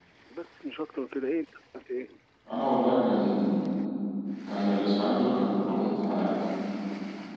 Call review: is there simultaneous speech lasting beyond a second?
No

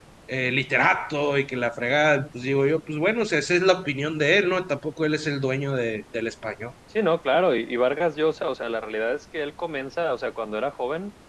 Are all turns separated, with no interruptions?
Yes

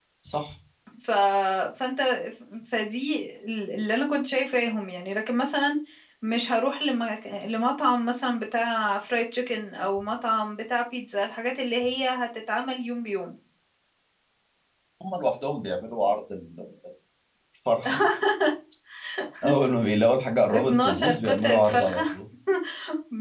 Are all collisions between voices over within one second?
No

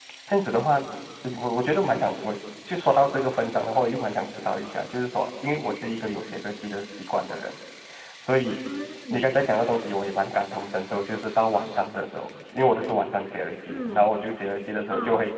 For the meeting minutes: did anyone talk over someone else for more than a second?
No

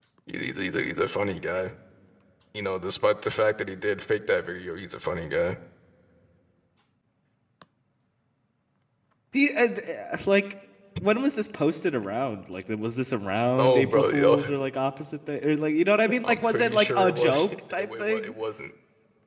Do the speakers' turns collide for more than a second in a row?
Yes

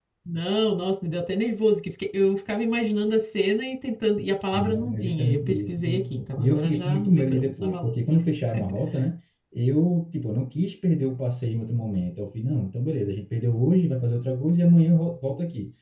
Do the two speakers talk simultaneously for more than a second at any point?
Yes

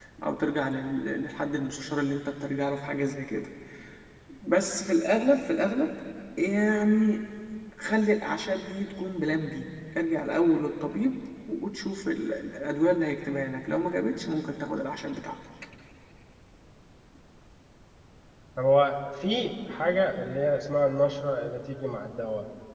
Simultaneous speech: No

